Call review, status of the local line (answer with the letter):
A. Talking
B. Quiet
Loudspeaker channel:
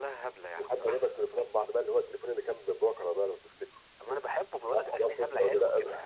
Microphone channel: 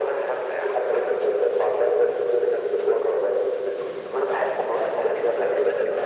B